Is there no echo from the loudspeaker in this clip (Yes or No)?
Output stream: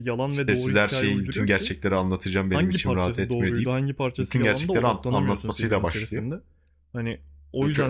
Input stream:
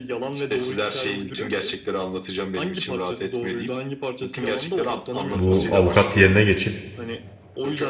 No